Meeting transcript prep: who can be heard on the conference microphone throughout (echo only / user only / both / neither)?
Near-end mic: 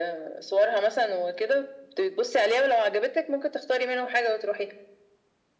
echo only